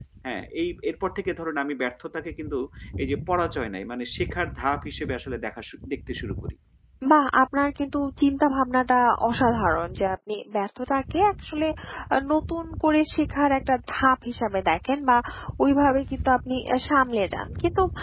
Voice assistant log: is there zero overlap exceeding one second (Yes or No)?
Yes